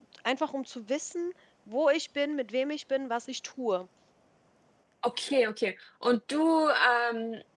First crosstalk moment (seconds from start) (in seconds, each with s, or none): none